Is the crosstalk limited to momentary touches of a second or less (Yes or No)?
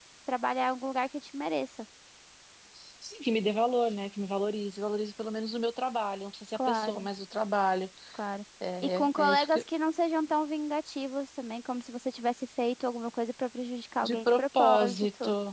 No